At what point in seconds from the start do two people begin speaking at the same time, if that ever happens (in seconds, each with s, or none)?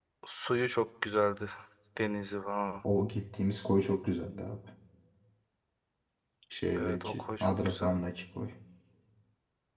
6.8 s